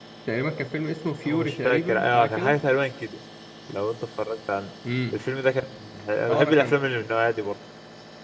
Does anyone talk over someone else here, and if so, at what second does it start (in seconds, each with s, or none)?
1.2 s